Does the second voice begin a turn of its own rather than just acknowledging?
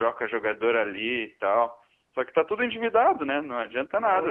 No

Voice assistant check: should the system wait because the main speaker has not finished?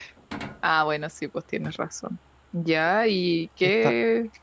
Yes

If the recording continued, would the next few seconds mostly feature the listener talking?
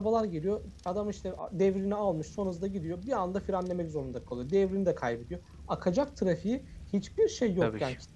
No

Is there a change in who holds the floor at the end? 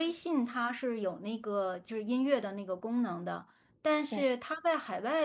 No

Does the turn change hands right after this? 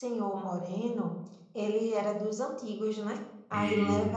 No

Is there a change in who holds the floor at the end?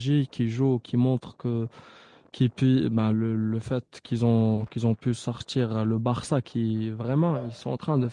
No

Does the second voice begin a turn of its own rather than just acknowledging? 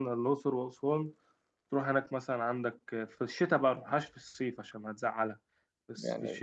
No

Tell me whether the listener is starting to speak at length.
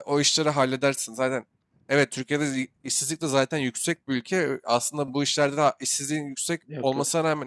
No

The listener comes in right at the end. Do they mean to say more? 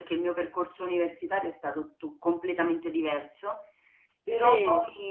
No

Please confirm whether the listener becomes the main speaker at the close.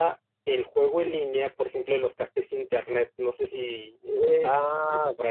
Yes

